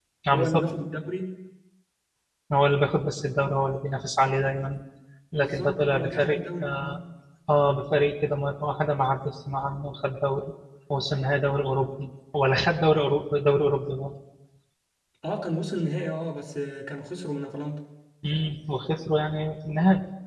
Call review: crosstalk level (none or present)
present